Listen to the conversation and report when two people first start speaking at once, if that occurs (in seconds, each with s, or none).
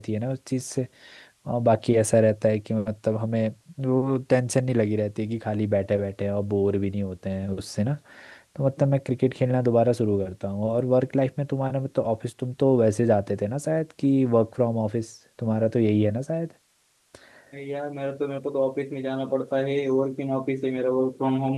none